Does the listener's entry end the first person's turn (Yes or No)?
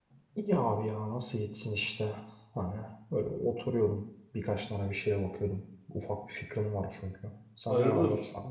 Yes